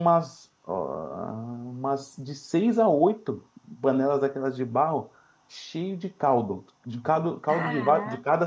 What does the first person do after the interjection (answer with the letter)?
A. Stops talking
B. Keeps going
B